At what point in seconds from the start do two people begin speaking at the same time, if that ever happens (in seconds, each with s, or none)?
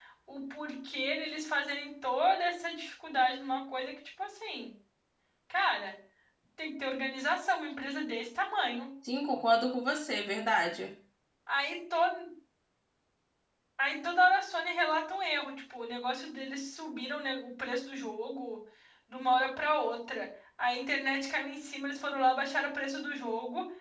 none